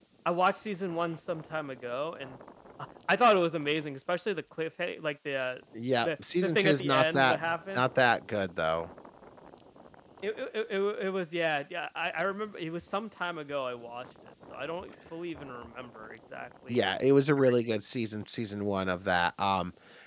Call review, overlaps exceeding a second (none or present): present